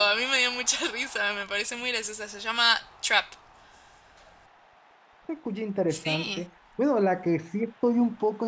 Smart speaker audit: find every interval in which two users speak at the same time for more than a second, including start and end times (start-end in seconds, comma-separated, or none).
none